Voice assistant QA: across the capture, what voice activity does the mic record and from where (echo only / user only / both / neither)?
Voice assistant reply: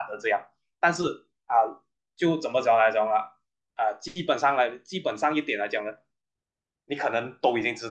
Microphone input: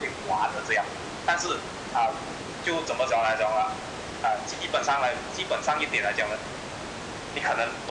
echo only